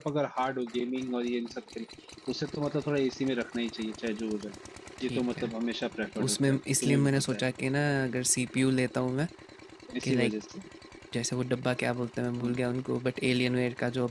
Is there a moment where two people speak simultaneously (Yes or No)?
Yes